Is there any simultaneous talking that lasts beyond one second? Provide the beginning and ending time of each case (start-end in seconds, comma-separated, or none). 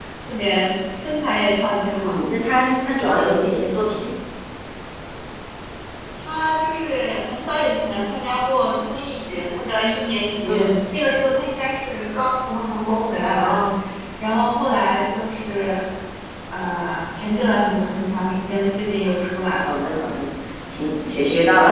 none